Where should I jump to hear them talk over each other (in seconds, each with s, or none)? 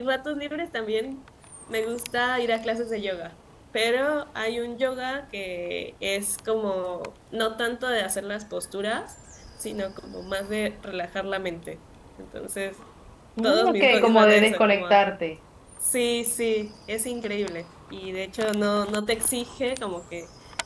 13.4 s